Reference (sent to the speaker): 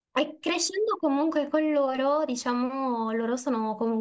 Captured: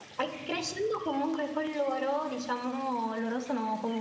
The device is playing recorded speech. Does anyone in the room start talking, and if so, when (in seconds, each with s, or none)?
none